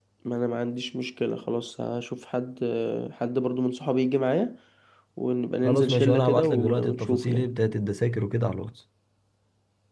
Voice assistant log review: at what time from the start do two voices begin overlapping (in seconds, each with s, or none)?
5.6 s